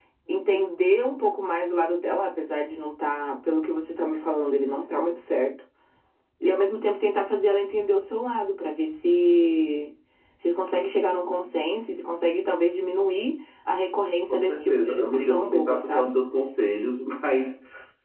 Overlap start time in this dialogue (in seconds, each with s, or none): 14.3 s